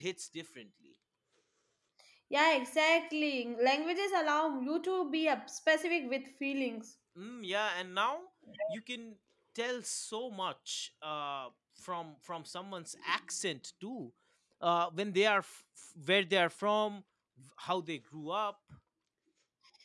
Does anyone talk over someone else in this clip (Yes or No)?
No